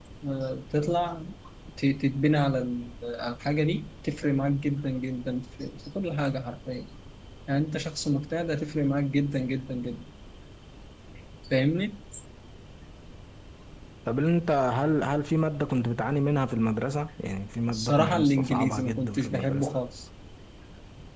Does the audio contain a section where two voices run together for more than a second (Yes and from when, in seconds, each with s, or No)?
Yes, from 17.7 s